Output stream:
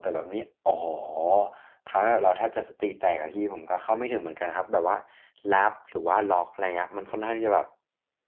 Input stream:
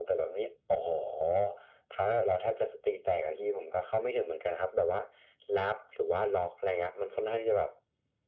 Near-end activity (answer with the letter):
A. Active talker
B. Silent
B